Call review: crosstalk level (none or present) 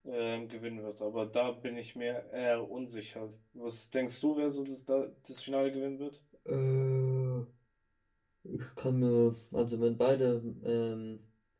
none